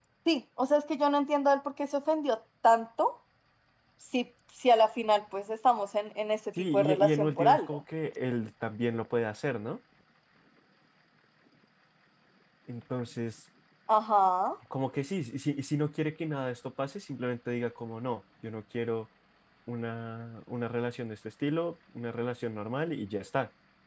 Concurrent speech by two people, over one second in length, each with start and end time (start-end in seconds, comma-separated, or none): 6.6-7.8